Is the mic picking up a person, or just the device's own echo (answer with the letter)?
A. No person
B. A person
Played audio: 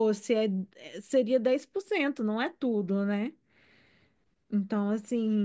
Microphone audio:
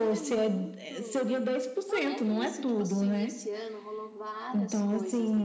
B